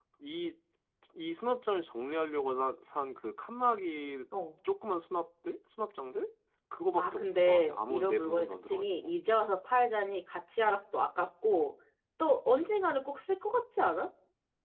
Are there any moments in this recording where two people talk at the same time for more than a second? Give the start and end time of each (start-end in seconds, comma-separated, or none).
7.0-9.1